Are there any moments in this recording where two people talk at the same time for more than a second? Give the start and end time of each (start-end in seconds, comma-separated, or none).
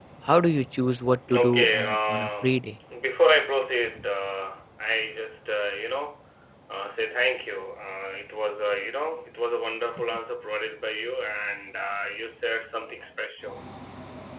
1.3-2.6